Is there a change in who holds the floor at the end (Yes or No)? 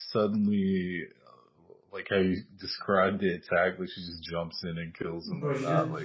Yes